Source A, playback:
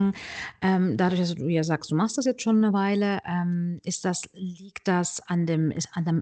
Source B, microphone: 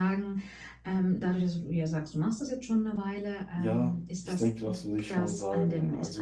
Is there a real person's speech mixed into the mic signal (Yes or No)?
Yes